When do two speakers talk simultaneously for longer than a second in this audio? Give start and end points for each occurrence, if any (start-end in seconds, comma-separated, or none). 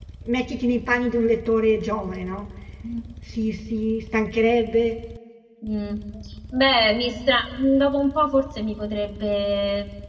none